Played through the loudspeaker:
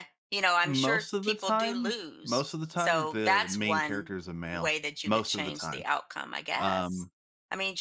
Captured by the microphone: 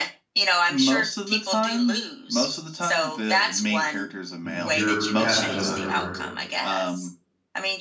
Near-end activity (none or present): present